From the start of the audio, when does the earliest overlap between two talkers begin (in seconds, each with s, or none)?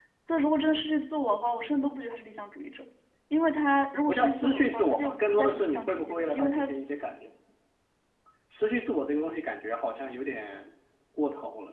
4.1 s